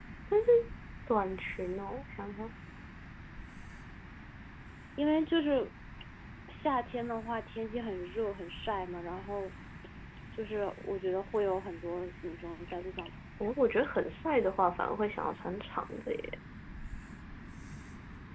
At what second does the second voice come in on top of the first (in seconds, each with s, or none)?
none